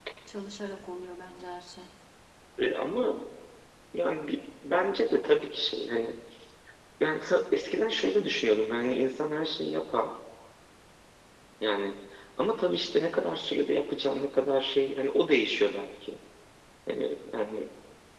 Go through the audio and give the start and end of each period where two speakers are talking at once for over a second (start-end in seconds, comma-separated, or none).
none